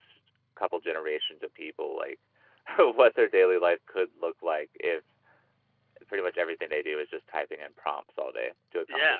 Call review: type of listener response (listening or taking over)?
taking over